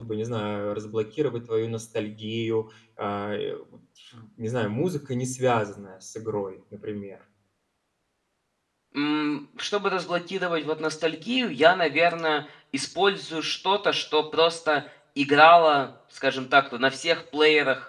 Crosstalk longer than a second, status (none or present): none